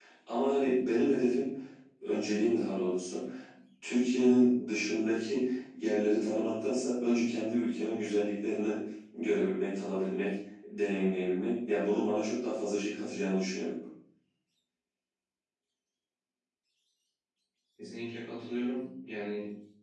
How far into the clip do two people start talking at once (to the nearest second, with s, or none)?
none